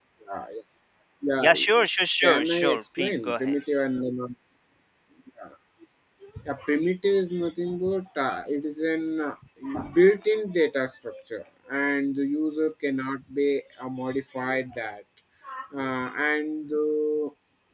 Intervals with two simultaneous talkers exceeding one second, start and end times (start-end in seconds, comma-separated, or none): 1.4-3.5